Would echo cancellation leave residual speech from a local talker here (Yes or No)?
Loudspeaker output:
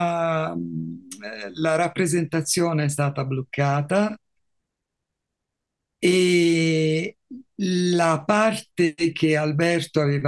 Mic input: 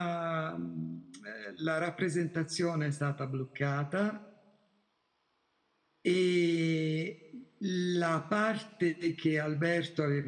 No